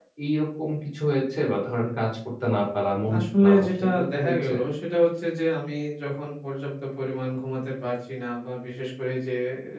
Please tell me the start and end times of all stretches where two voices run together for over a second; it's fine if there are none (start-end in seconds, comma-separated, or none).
3.2-4.5